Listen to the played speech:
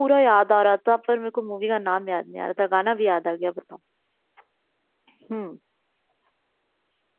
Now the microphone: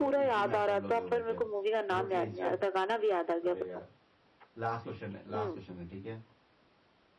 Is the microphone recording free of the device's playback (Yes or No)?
No